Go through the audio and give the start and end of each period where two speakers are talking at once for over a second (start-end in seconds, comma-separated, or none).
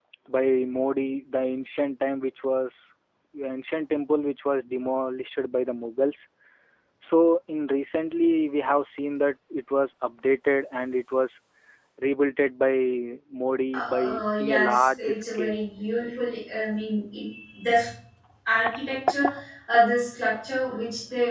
13.7-15.6